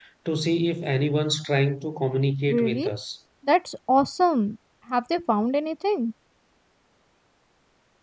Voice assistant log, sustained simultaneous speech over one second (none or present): none